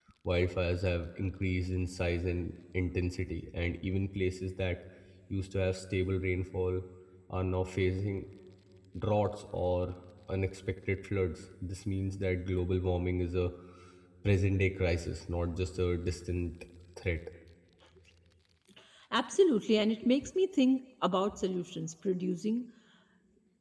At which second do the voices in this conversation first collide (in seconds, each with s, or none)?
none